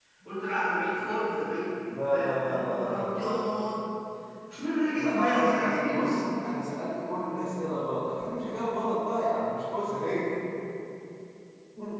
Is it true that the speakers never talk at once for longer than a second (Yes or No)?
No